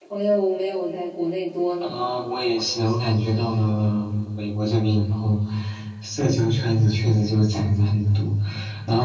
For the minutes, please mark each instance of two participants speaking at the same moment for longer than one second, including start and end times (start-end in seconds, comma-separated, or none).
none